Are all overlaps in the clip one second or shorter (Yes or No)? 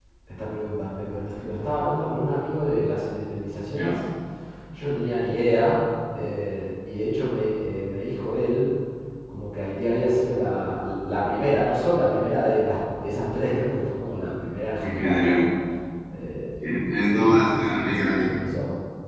No